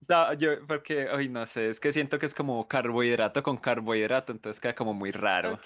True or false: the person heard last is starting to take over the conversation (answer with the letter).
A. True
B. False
A